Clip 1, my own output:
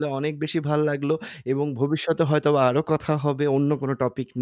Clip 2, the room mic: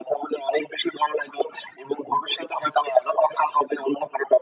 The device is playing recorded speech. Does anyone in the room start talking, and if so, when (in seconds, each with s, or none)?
none